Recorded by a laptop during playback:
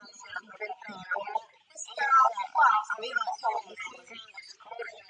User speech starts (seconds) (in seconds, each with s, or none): none